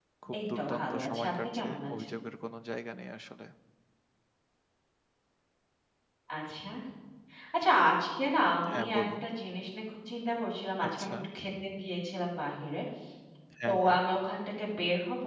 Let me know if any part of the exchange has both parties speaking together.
Yes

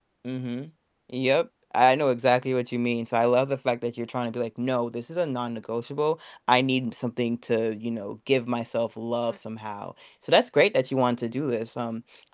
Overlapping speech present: No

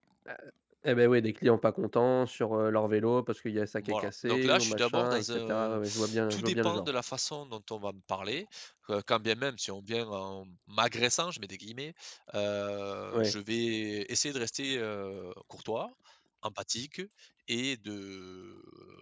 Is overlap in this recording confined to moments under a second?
No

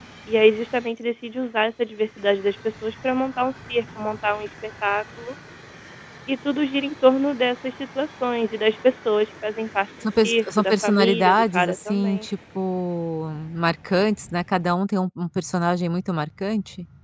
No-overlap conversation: No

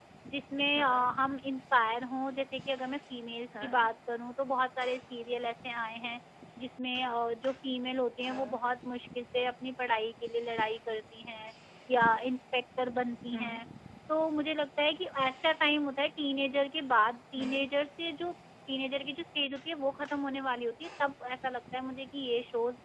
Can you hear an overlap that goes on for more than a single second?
No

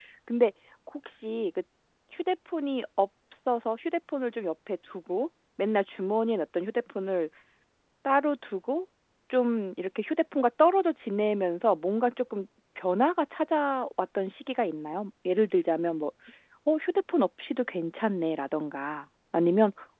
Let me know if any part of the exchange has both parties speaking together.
No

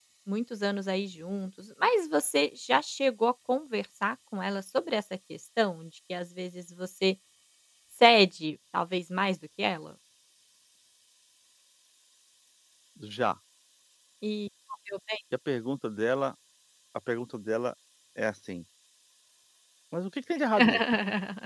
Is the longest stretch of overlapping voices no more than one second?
Yes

